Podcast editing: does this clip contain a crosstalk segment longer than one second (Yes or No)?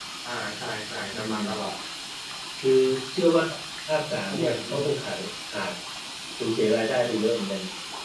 No